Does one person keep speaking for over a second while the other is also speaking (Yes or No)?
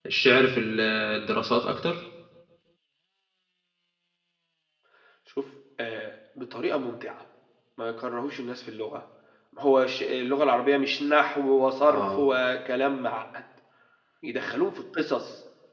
No